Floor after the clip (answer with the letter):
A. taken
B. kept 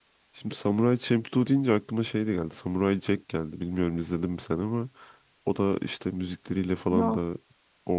B